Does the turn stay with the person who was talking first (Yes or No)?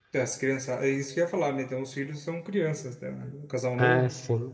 No